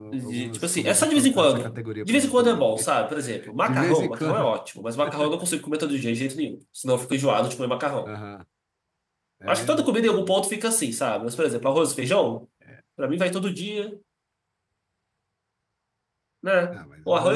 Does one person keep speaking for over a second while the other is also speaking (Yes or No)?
Yes